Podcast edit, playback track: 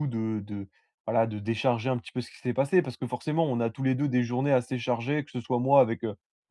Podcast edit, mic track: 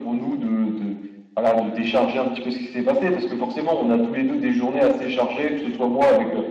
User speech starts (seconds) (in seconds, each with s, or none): none